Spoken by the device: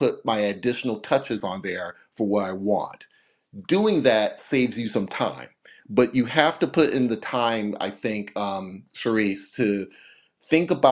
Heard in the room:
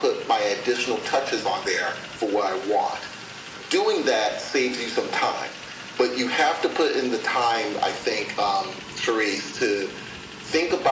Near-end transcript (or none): none